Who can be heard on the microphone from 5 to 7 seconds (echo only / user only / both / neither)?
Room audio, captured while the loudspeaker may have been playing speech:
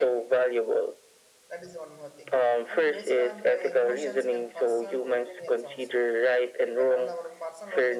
both